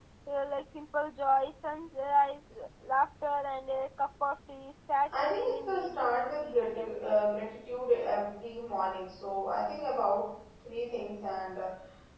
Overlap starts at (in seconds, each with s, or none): 5.1 s